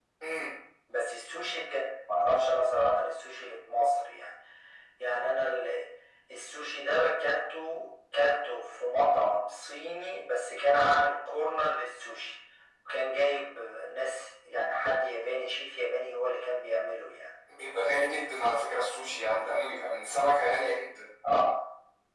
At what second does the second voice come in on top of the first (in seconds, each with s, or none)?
none